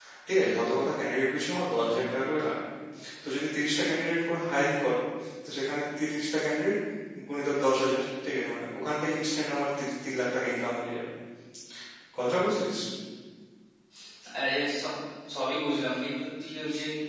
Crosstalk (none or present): none